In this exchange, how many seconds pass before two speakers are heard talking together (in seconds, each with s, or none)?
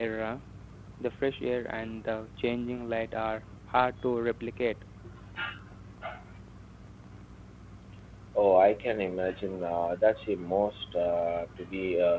none